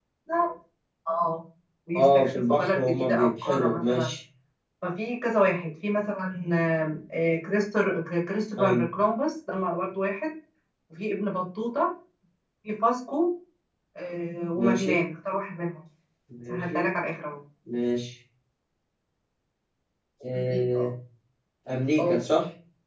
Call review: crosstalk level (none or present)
present